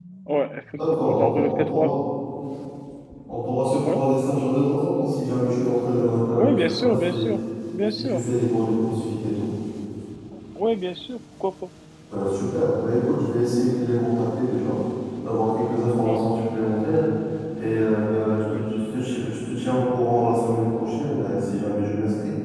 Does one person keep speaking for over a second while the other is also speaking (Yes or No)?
Yes